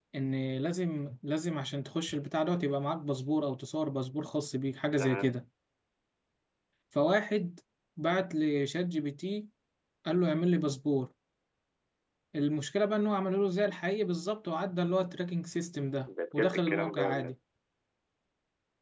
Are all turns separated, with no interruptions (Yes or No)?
No